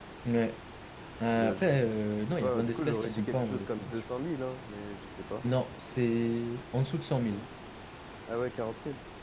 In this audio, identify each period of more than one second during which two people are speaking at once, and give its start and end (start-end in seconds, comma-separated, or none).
1.3-4.0